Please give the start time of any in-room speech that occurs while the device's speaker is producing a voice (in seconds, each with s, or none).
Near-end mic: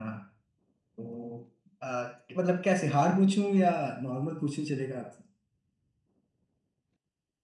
none